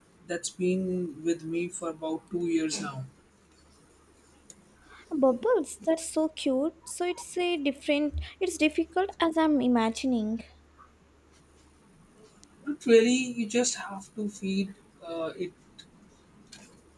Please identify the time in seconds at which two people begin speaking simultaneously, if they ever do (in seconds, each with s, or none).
none